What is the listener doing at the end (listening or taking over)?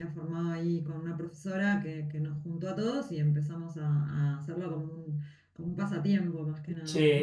taking over